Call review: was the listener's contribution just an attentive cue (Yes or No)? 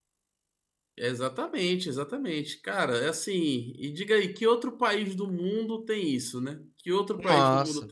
No